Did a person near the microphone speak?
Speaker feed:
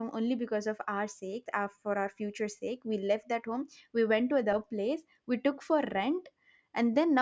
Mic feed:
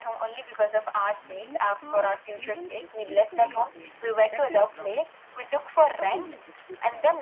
Yes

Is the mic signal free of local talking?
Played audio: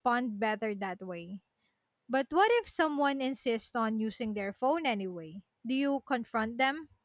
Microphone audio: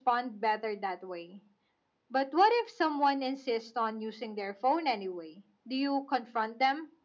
Yes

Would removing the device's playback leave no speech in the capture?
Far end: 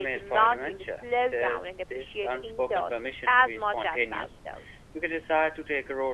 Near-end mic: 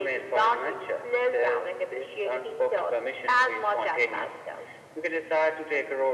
Yes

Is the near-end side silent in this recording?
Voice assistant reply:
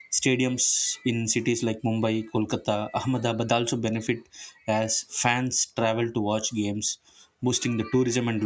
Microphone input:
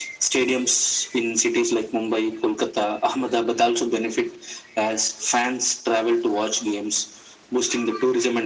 Yes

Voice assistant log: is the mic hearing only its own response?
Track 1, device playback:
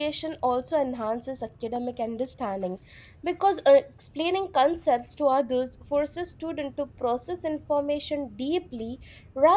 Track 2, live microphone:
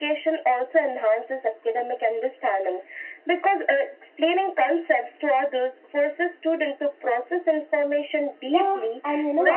No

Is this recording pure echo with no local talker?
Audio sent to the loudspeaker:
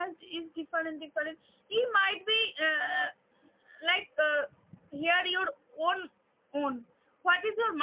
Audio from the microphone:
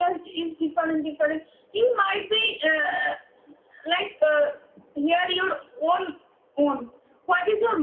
Yes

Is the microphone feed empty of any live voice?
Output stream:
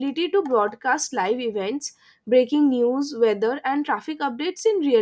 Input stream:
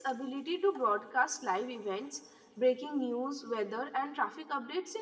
Yes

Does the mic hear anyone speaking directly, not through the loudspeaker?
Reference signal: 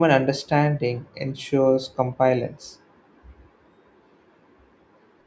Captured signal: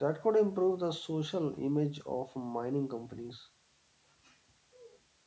Yes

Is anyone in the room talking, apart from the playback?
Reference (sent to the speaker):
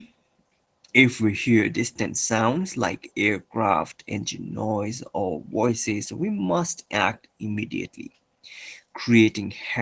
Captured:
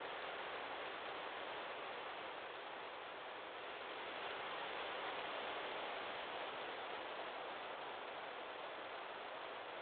No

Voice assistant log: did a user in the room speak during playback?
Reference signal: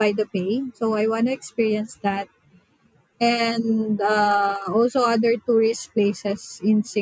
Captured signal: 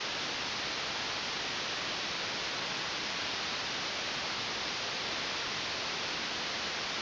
No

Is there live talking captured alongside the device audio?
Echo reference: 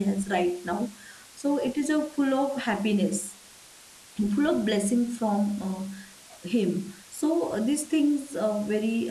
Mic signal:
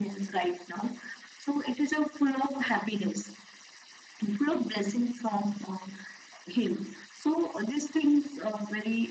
No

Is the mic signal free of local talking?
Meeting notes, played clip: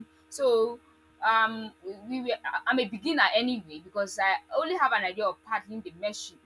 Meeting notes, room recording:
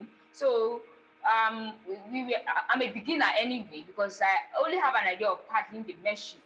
Yes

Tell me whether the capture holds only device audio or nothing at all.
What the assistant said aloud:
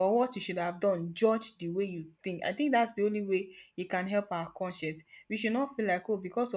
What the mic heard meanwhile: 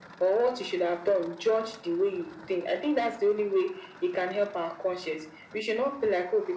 Yes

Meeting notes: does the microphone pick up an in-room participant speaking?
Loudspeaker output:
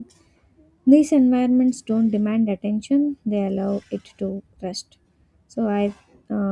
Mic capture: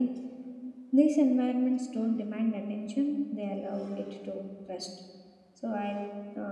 No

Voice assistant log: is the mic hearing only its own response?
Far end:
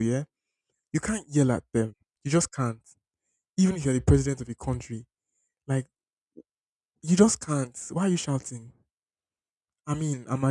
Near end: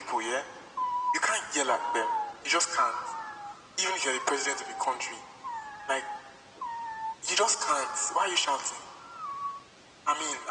Yes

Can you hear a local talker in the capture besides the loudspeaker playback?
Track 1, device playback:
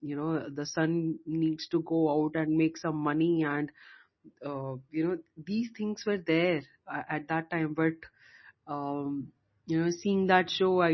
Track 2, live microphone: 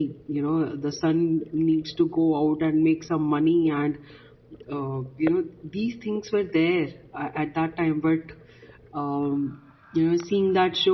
No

